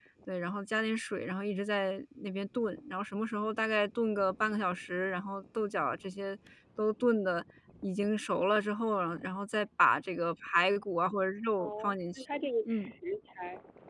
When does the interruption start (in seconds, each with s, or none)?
11.6 s